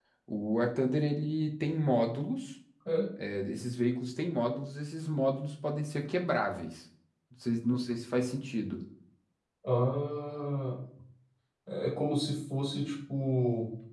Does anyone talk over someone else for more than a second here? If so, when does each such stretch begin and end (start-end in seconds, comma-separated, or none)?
none